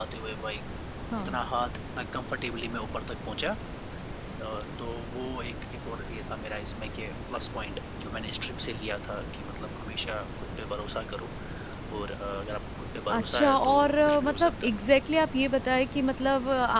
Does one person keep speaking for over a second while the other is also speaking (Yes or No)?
Yes